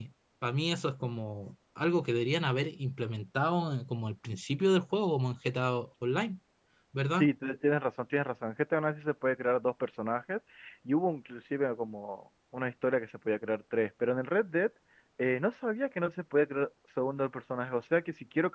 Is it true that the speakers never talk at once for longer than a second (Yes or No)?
Yes